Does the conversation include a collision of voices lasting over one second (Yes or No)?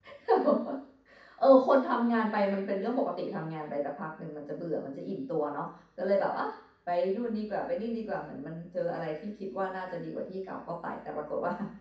No